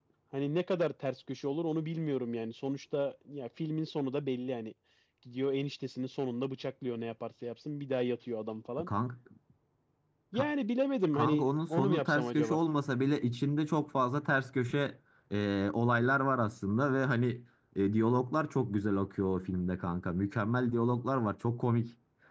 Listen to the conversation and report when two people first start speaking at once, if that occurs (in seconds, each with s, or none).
11.1 s